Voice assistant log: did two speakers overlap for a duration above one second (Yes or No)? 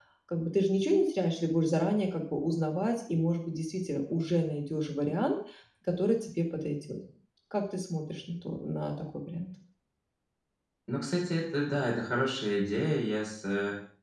No